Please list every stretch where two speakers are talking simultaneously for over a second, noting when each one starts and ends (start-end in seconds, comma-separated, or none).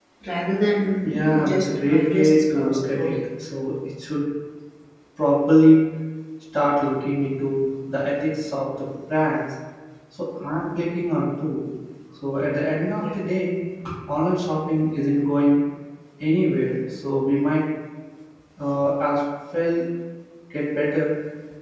1.0-3.2